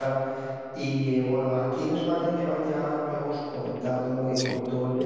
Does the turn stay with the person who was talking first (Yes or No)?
Yes